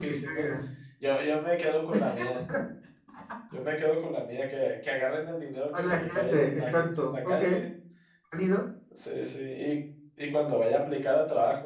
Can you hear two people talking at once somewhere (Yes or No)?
Yes